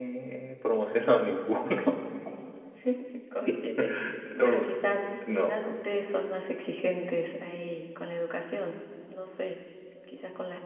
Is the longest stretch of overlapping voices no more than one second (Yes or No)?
Yes